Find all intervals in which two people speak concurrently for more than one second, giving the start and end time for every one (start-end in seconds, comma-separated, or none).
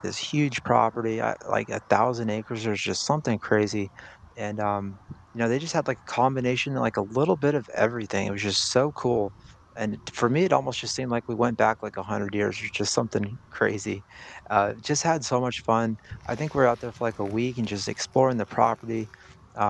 none